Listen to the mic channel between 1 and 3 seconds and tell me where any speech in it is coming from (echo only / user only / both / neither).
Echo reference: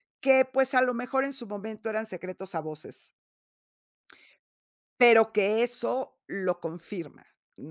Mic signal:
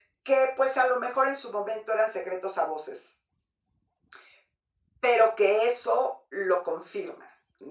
echo only